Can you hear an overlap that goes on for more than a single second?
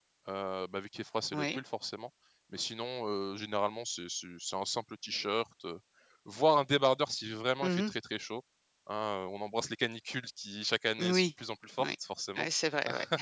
No

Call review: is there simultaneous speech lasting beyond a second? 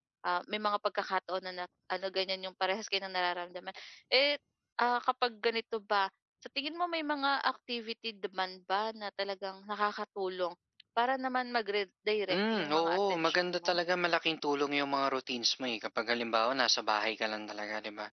Yes, from 12.3 s

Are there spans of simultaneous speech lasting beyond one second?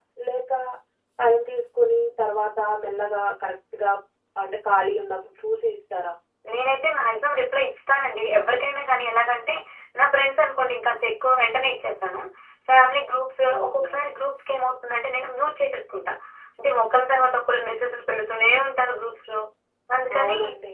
No

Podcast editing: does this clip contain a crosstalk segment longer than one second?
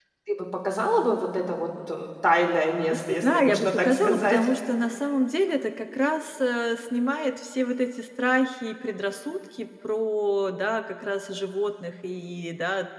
Yes, from 3.1 s

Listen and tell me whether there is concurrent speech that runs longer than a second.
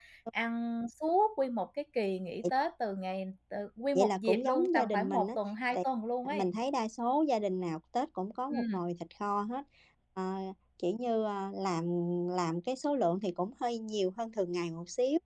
Yes, from 4.0 s

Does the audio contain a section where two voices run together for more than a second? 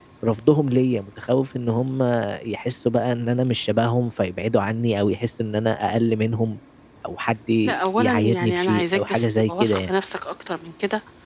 Yes, from 7.7 s

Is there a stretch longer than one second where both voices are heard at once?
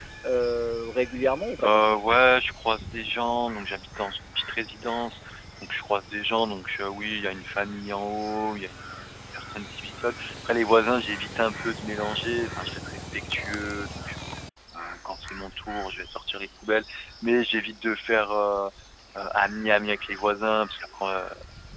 No

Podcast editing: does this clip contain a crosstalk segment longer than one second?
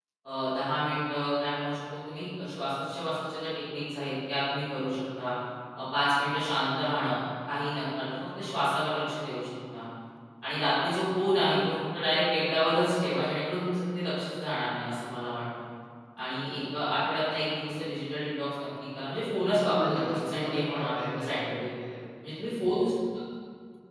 Yes, from 19.4 s

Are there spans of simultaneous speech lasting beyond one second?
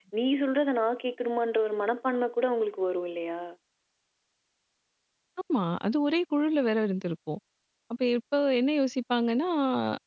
No

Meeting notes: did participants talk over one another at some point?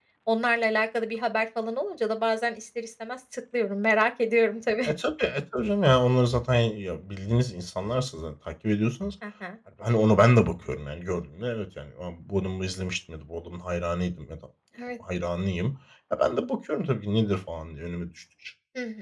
No

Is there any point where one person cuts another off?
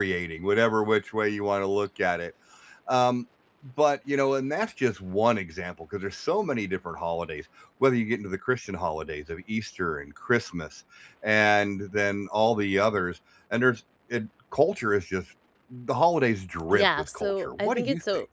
Yes, from 16.7 s

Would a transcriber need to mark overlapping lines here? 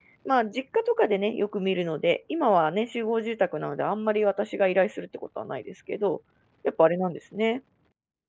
No

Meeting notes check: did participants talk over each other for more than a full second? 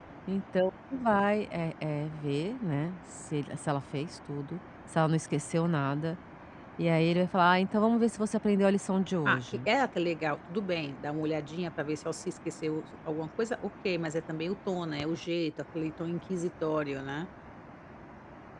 No

